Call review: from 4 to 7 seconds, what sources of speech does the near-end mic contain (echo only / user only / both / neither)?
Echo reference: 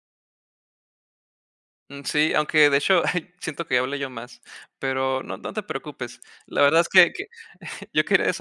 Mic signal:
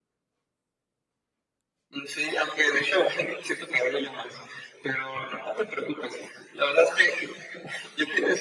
echo only